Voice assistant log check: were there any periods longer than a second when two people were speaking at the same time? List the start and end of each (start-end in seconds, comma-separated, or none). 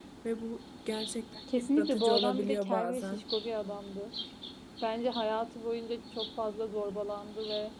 1.6-3.2